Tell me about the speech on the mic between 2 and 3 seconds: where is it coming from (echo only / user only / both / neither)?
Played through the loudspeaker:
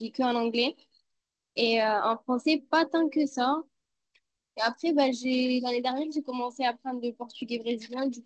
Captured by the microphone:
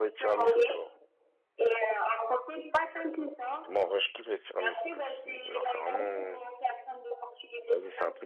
echo only